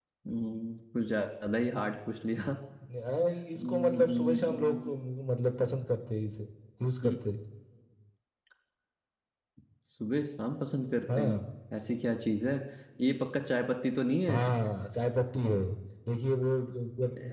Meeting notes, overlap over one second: present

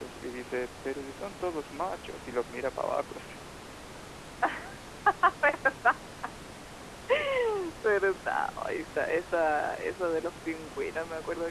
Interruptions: none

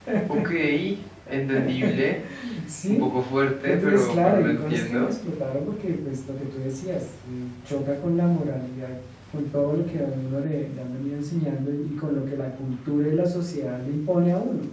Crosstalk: present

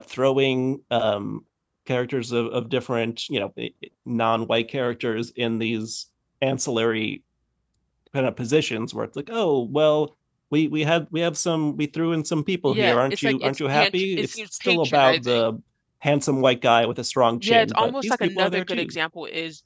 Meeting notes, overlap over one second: present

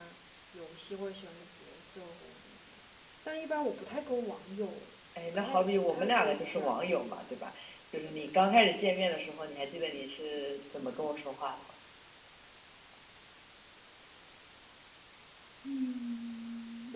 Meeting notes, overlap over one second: present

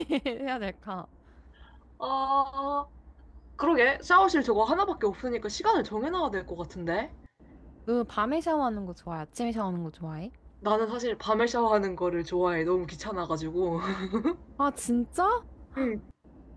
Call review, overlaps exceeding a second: none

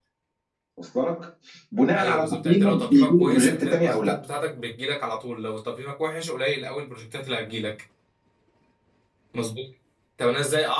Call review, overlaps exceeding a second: present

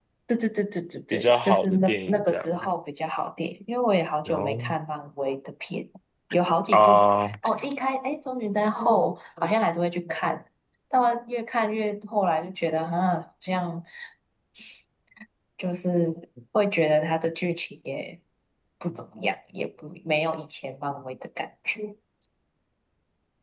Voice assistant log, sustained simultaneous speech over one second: present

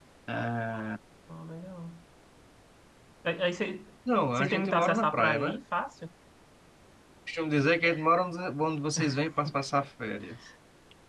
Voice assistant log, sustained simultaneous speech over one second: present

